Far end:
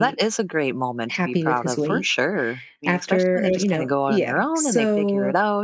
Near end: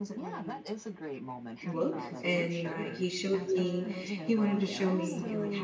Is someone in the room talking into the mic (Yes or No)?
Yes